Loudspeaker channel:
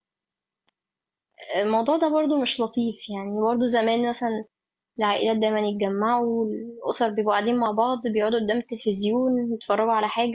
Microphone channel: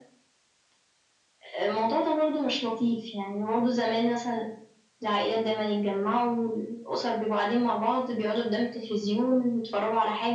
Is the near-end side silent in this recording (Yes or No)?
Yes